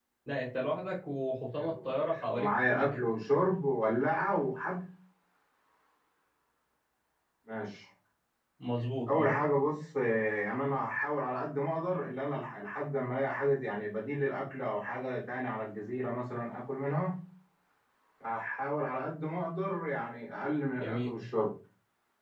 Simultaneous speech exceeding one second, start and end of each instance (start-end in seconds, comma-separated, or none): 1.5-3.0